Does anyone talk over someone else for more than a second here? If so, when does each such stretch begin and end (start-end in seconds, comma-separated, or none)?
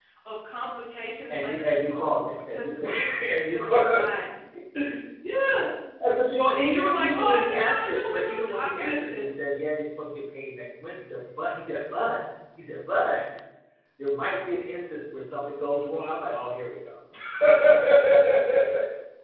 1.3-4.2, 6.5-9.2